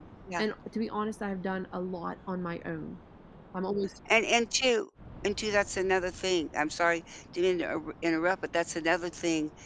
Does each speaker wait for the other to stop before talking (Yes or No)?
Yes